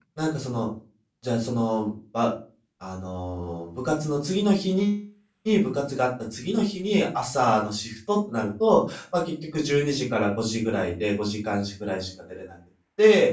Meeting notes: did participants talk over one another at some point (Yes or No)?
No